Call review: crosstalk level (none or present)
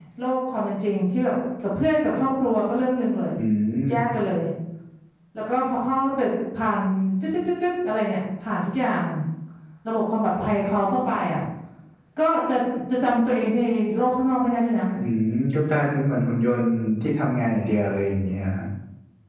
none